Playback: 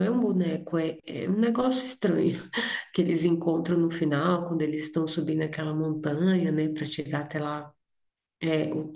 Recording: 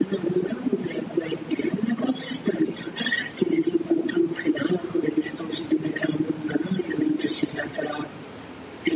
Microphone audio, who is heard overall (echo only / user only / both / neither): echo only